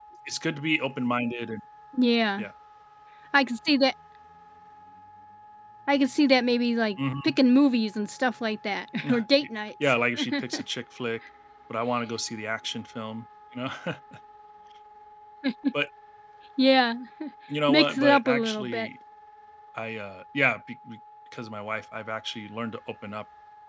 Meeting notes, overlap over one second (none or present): present